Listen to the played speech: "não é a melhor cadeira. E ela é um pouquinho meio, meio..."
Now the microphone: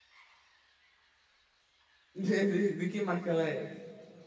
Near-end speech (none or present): present